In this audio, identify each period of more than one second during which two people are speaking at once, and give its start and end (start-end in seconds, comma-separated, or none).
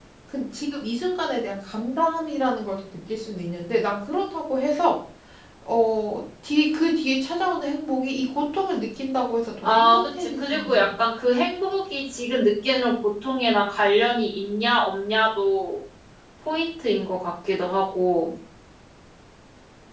9.6-10.9